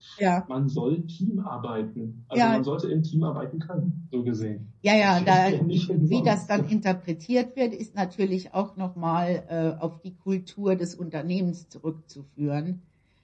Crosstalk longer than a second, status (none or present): present